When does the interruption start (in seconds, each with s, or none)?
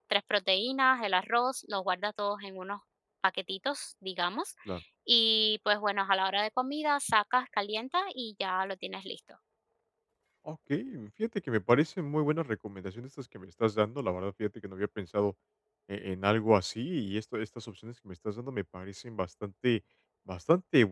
none